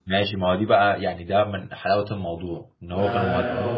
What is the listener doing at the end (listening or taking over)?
listening